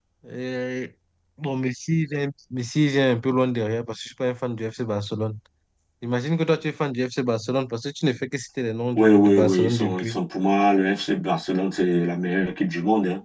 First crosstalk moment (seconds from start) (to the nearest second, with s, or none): 9 s